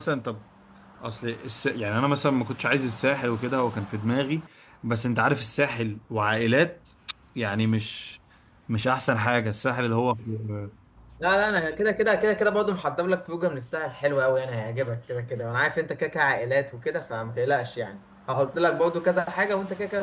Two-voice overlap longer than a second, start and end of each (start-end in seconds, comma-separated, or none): none